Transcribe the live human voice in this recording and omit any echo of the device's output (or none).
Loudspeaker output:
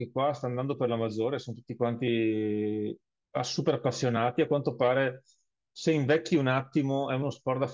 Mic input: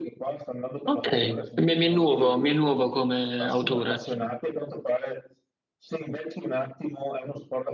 ok. Mi, mi è nuovo, mi è nuovo come autore.